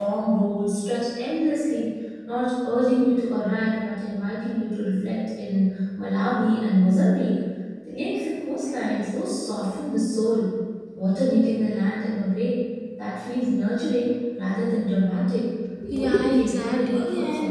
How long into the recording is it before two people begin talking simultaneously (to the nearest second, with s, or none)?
16 s